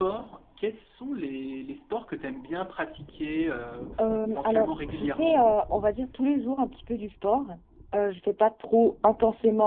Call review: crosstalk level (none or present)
present